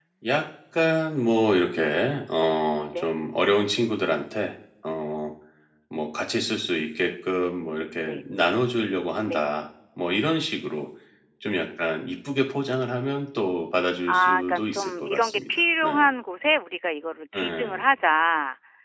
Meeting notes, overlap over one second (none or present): present